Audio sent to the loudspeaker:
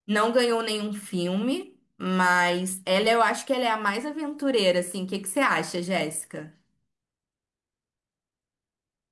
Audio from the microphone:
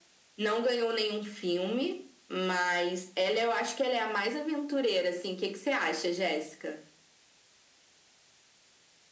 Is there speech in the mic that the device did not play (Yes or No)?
No